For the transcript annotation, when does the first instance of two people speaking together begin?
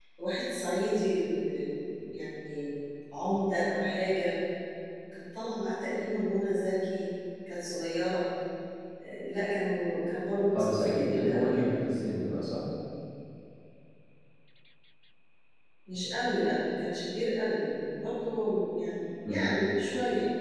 10.5 s

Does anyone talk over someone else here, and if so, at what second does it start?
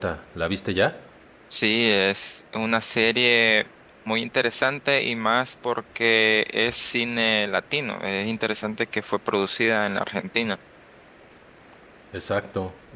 none

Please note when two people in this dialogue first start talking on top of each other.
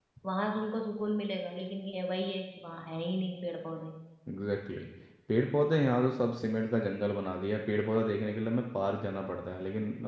none

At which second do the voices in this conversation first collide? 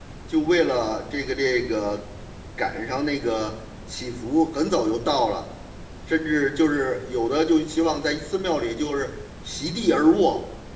none

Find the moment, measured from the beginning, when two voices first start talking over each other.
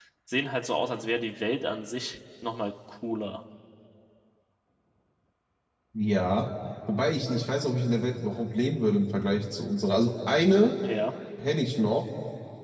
none

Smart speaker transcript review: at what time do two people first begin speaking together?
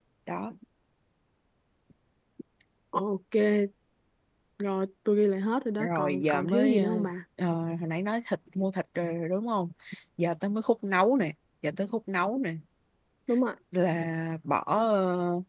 5.8 s

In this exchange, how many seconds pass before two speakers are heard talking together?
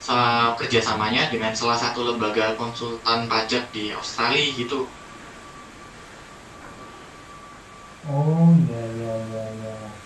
none

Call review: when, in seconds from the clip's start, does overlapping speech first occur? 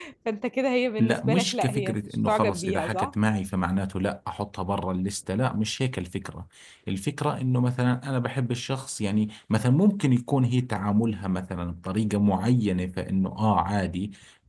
1.0 s

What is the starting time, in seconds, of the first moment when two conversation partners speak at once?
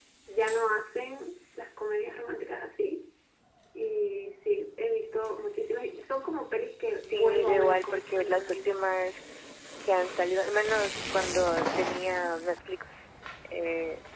7.0 s

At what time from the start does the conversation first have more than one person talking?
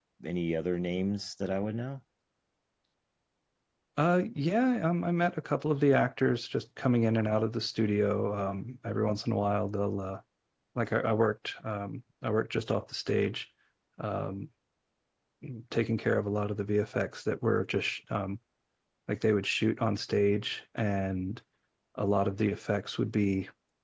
none

